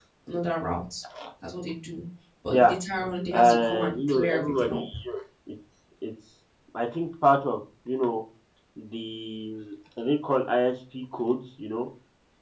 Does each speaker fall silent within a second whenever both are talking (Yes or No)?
No